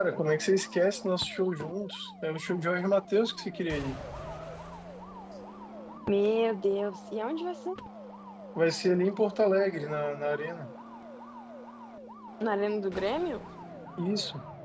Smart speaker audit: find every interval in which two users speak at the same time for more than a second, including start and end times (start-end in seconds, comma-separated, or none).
none